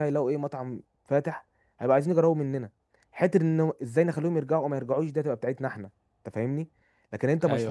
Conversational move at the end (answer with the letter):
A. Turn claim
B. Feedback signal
B